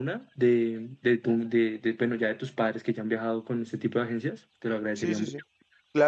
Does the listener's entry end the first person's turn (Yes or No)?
Yes